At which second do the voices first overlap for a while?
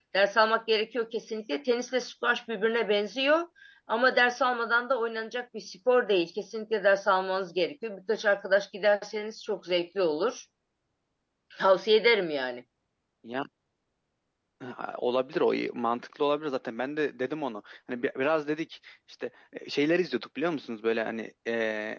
none

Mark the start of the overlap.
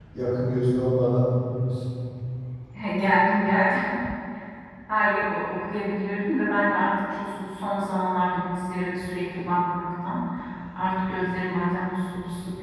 none

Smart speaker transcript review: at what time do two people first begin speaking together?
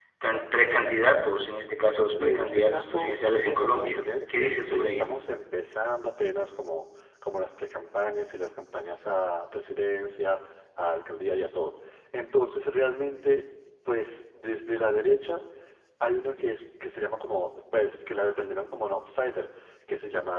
2.1 s

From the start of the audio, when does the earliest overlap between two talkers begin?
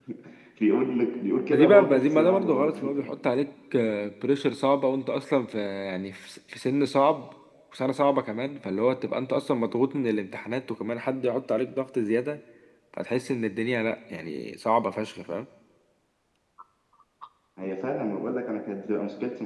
1.5 s

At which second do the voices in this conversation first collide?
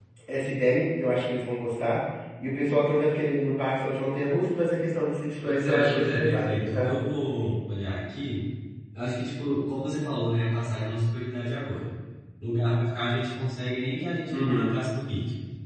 5.4 s

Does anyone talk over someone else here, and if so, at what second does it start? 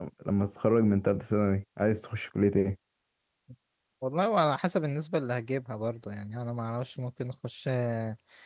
none

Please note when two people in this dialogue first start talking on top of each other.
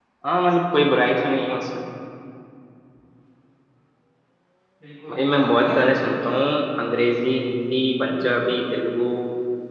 5.1 s

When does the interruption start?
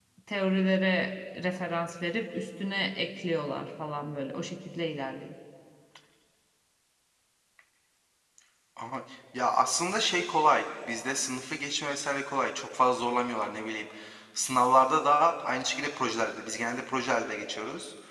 none

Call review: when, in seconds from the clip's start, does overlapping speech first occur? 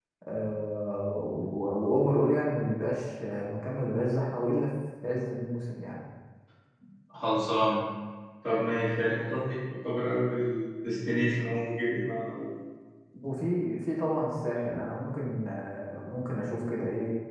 none

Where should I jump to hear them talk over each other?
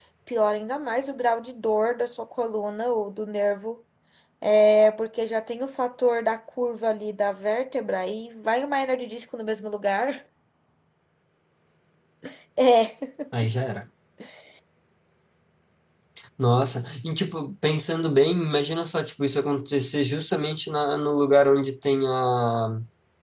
none

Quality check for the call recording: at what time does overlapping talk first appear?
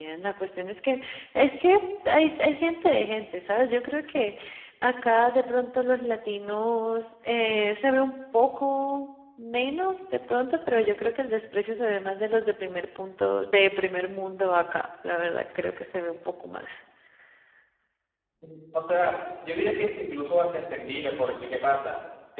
none

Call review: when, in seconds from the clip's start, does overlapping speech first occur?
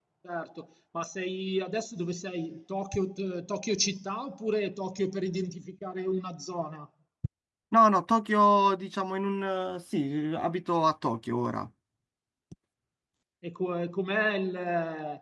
none

